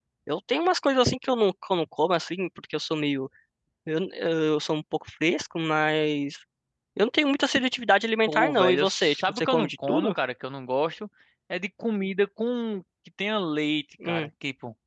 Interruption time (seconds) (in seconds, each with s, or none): 8.3 s